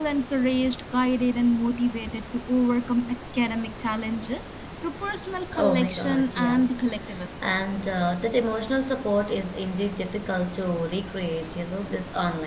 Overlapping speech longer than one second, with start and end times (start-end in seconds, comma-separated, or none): 5.5-6.9